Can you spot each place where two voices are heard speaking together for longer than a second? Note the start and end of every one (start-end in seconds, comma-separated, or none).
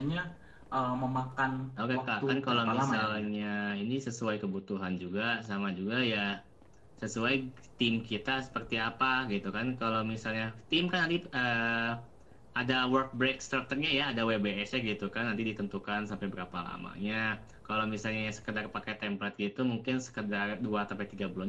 2.0-3.3